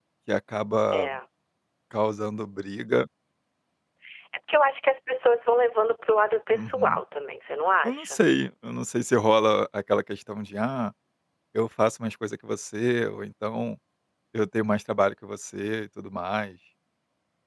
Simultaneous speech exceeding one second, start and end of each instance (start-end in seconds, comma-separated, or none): none